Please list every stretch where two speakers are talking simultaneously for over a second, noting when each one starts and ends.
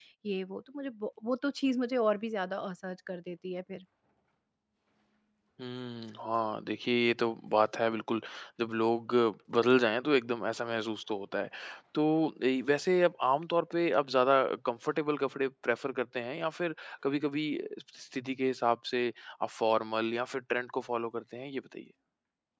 none

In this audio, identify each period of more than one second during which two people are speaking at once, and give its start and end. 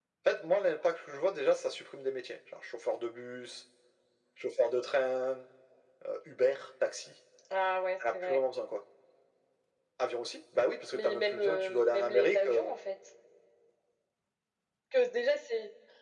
10.9-12.7

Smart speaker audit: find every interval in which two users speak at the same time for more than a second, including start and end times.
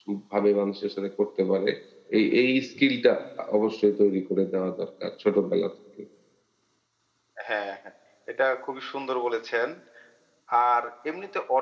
none

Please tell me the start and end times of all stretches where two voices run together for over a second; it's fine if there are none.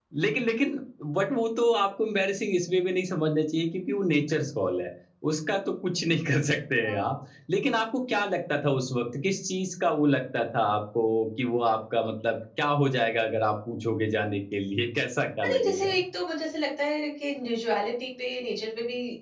none

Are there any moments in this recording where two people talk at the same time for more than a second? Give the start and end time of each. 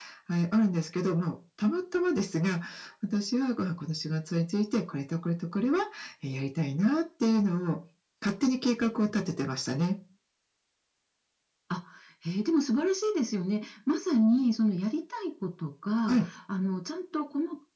none

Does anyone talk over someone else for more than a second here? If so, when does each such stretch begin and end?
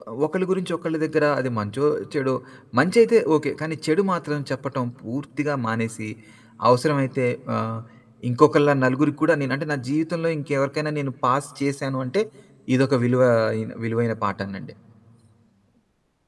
none

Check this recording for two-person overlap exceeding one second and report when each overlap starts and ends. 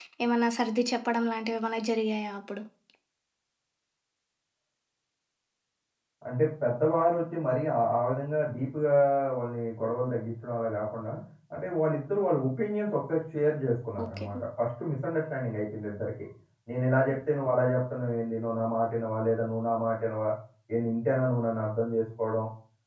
none

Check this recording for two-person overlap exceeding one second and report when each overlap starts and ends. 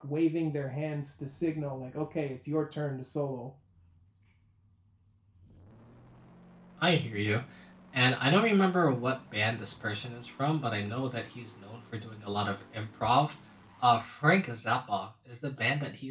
none

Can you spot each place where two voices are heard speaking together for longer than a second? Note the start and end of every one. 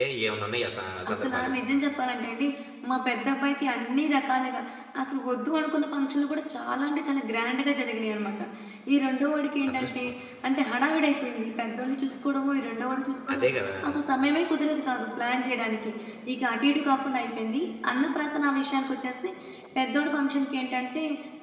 none

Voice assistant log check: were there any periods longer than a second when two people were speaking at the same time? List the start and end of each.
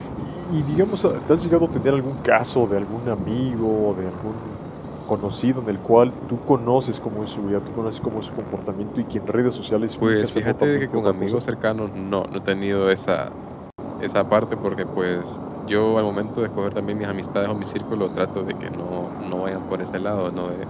10.0-11.4

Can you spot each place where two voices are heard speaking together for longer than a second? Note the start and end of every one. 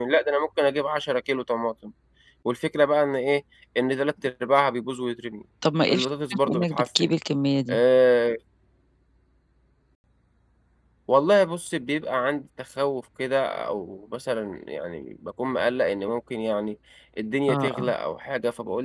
5.9-7.1

